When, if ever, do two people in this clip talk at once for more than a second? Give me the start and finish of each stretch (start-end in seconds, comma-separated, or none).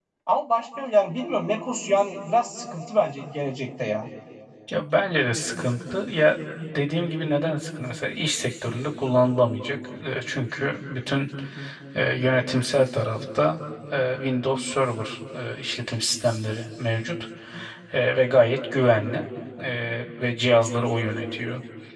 none